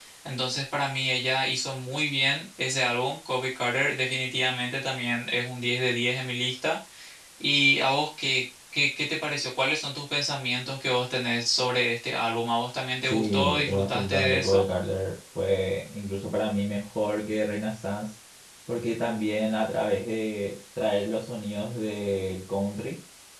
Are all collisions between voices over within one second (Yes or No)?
No